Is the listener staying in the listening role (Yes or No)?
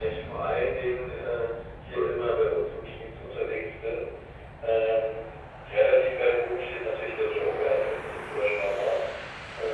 No